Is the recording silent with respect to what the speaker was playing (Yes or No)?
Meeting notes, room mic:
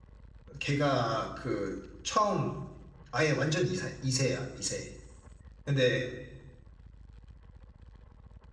Yes